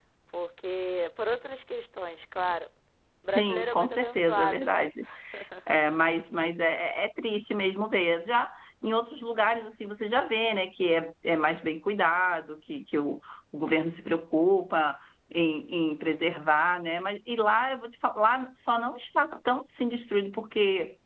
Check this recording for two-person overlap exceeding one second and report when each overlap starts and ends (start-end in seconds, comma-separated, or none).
3.3-4.9